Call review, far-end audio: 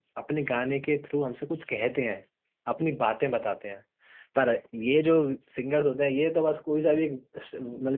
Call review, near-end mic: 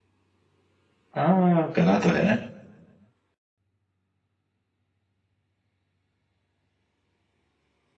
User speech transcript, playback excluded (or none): हाँ कला तो है